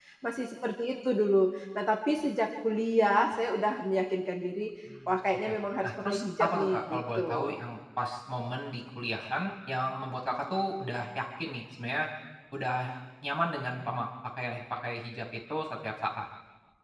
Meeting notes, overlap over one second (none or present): present